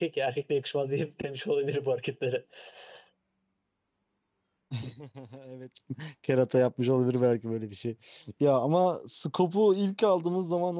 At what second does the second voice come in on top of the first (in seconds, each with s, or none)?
none